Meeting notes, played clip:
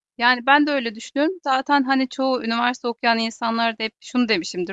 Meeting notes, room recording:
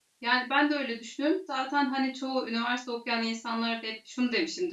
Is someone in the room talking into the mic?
No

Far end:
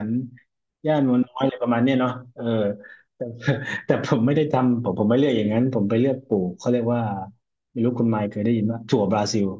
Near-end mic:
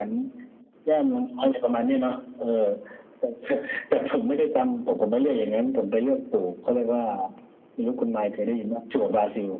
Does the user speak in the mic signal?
No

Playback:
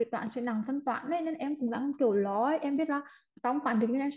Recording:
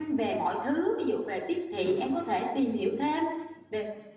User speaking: Yes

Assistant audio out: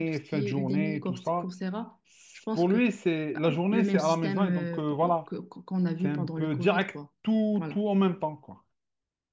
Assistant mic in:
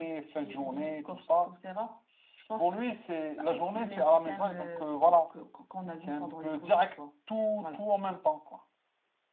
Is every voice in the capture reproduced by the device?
Yes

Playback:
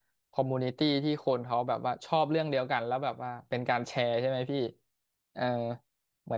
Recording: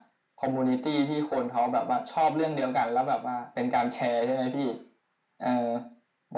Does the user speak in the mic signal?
No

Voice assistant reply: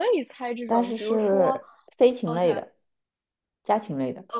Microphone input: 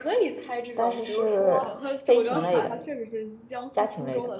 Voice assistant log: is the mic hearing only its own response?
No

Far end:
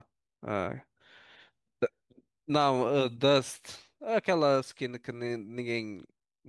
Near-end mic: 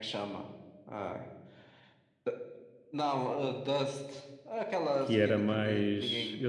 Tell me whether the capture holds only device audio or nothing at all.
No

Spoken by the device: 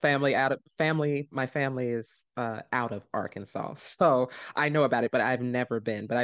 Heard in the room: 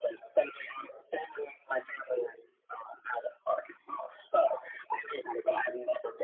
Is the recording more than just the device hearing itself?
No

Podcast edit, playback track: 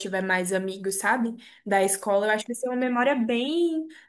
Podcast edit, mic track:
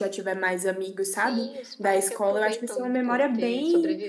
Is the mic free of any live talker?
No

